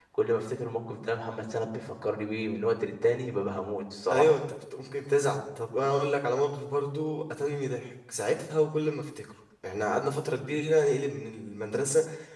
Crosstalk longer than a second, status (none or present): none